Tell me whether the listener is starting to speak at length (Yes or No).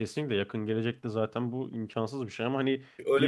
Yes